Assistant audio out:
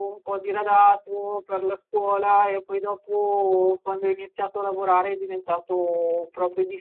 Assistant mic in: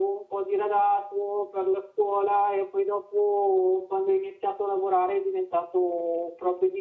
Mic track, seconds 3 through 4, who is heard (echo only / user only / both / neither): echo only